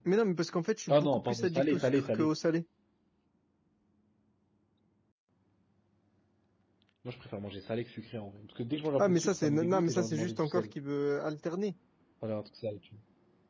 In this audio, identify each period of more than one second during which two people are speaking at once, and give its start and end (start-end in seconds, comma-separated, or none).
0.9-2.3, 9.0-10.7